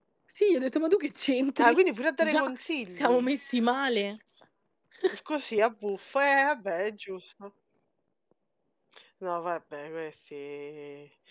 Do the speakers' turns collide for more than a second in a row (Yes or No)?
No